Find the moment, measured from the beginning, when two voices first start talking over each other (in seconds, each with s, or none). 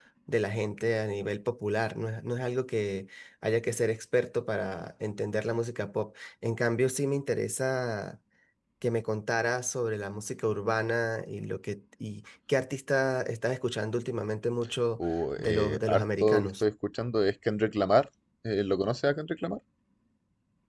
15.4 s